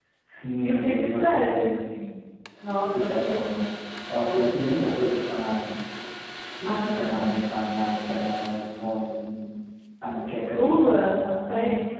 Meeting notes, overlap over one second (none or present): present